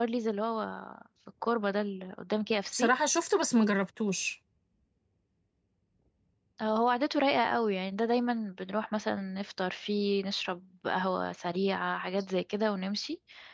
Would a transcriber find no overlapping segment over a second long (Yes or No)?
Yes